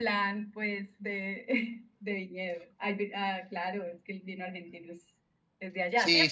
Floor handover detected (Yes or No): Yes